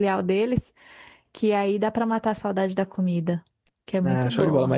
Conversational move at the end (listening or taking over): taking over